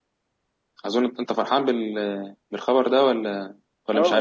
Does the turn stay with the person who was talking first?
No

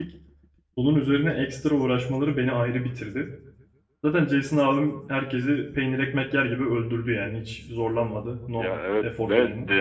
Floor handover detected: Yes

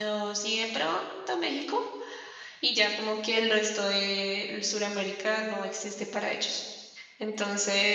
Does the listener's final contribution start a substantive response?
No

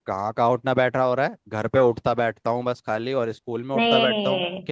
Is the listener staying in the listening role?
No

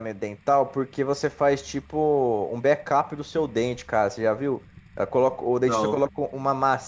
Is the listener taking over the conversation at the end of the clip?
No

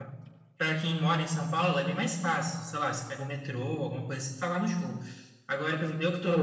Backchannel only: Yes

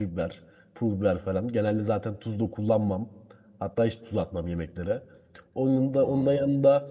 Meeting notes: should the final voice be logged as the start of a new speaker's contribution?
No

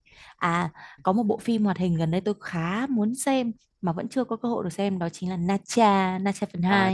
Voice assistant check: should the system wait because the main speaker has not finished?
No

